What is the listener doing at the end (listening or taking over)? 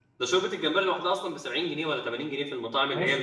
taking over